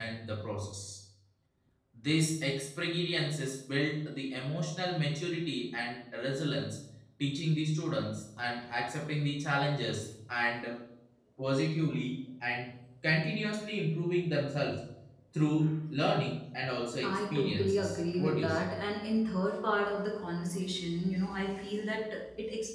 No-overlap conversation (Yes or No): No